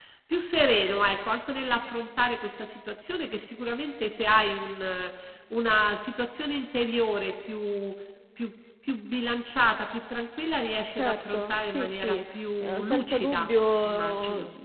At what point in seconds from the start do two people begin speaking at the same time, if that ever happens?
10.9 s

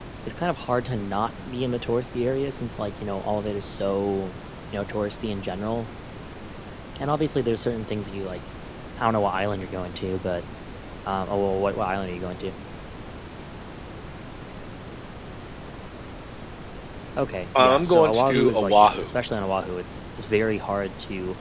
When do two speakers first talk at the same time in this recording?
17.6 s

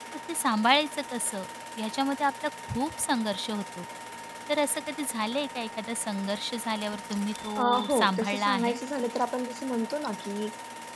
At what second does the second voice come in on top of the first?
7.4 s

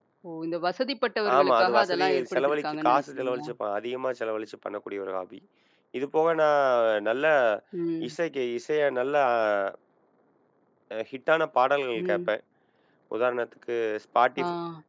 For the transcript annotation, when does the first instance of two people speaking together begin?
1.4 s

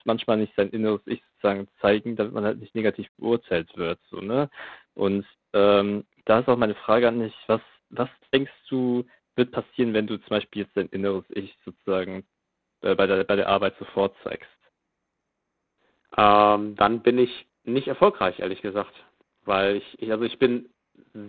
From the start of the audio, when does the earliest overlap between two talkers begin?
none

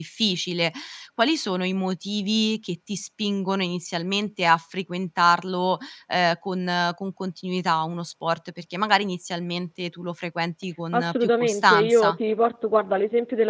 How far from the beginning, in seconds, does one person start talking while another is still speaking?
10.9 s

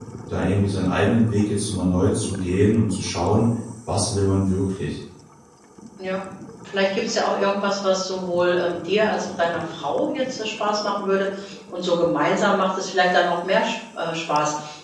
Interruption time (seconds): none

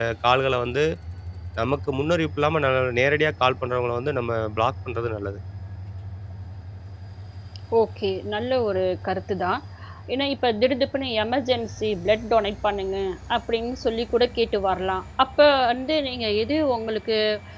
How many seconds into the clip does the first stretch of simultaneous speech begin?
none

